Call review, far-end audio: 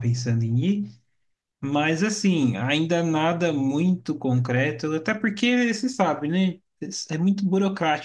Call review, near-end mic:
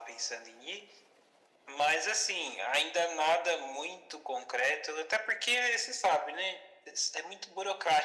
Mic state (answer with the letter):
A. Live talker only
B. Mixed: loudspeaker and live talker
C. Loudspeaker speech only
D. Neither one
C